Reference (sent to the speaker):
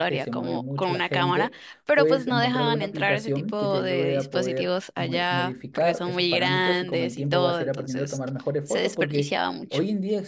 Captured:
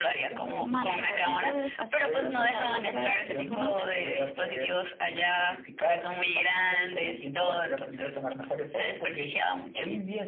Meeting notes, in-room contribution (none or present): present